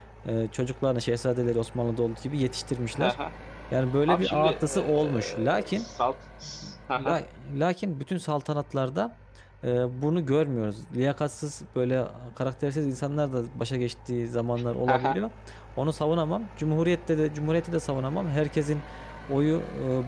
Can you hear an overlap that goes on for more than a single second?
Yes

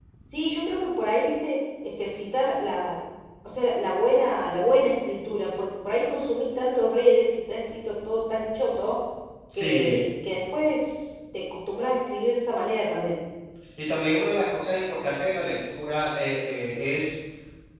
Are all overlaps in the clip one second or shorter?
Yes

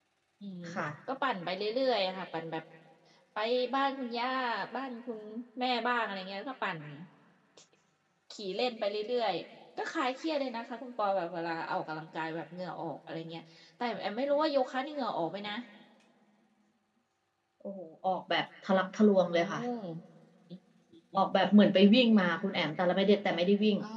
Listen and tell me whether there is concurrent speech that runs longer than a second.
No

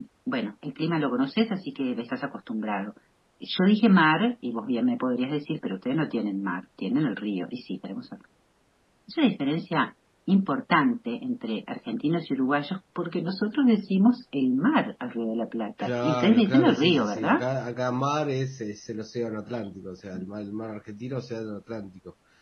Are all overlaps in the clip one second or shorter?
No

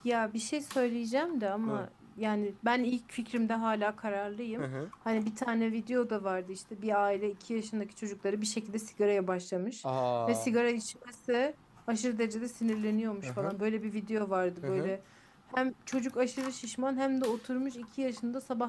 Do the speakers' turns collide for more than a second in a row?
No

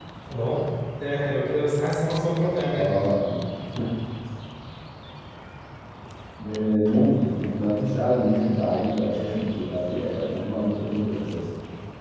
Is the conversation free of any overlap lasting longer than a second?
Yes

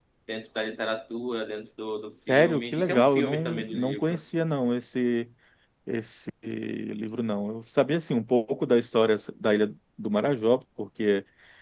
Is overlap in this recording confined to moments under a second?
No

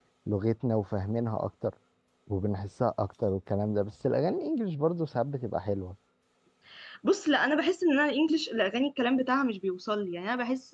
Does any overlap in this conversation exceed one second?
No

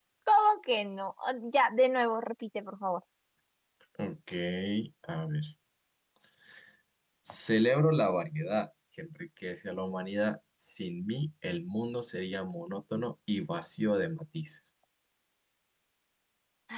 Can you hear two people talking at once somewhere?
No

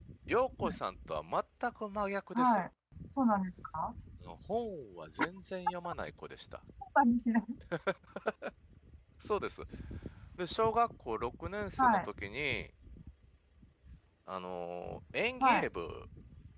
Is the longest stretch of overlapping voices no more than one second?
Yes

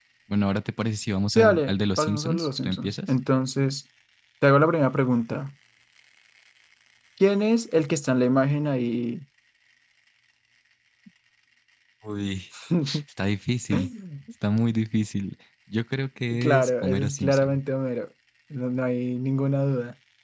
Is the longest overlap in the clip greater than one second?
Yes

